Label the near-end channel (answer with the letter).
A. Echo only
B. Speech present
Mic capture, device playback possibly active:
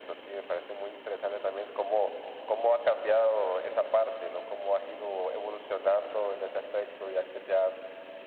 A